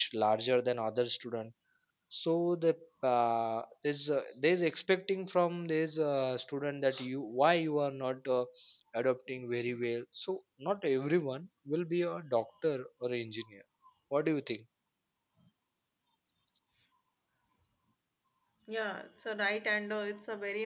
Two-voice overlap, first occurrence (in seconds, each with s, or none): none